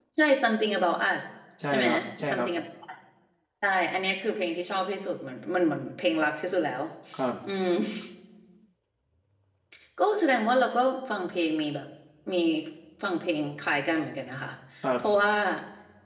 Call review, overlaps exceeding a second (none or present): none